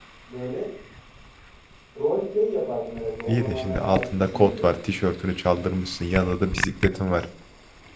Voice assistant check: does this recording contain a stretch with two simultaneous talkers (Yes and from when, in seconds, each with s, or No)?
Yes, from 3.3 s